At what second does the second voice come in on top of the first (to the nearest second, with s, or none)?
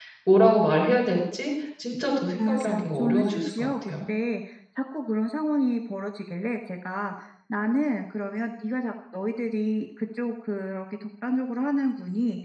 2 s